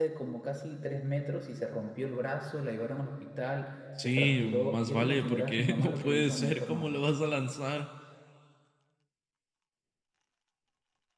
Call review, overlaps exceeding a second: present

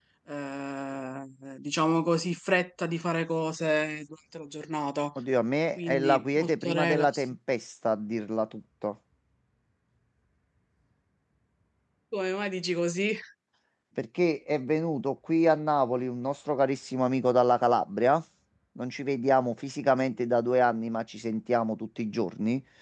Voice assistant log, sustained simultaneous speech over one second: present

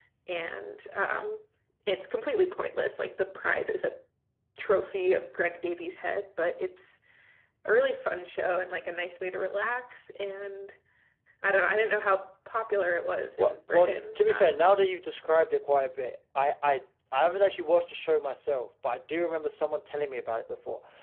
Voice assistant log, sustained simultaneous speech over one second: present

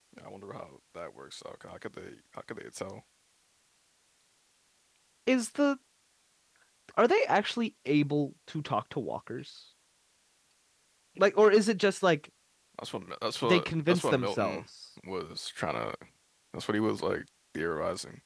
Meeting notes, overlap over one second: present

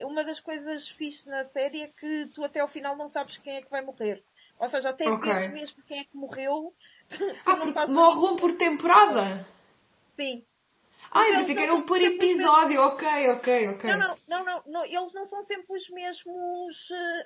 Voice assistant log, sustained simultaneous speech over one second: present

